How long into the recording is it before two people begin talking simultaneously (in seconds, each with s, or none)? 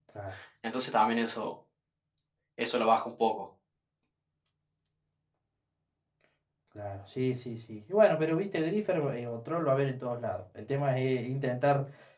none